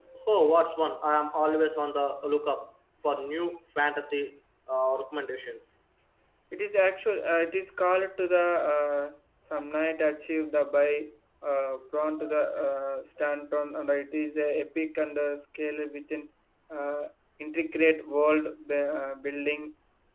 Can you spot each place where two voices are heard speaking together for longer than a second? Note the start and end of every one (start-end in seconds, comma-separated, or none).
none